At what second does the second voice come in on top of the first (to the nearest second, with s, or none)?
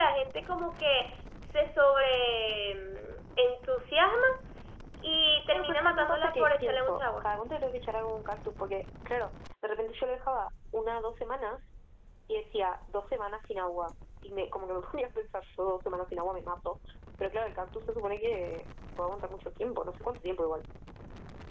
6 s